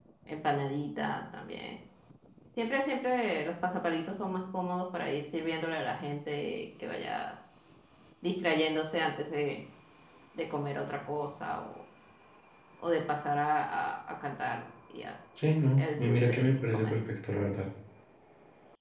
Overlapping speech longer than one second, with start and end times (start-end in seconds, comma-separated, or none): 15.8-17.0